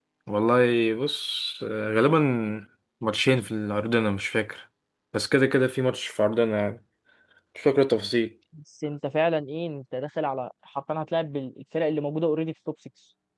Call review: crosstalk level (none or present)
none